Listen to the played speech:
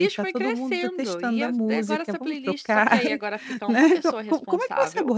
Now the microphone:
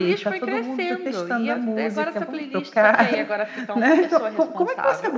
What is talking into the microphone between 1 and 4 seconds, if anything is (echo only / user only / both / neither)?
echo only